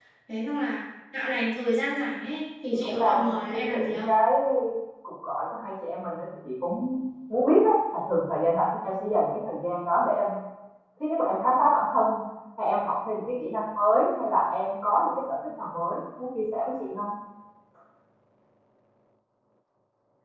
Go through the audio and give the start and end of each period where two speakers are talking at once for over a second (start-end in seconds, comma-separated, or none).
2.7-4.1